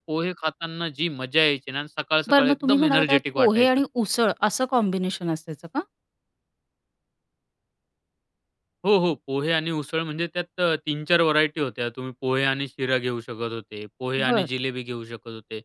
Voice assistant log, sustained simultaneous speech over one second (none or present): present